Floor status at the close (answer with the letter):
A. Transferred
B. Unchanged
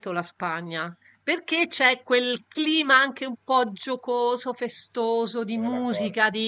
B